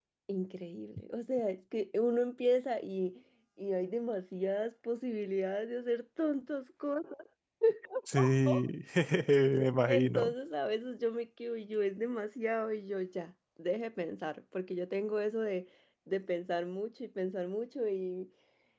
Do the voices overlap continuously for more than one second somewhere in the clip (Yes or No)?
No